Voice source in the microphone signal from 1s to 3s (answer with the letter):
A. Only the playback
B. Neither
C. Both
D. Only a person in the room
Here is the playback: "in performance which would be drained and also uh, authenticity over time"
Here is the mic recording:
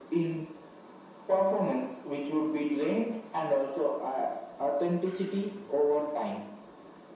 A